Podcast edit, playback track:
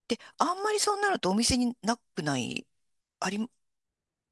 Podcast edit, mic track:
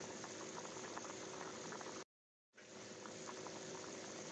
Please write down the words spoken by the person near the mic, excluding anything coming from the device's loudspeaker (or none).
none